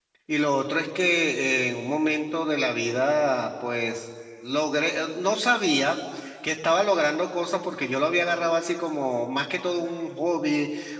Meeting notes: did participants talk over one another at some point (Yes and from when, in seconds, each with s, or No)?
No